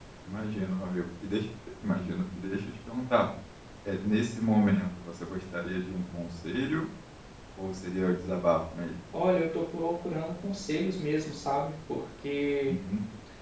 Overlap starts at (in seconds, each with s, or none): none